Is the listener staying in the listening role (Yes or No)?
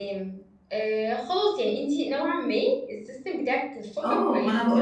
No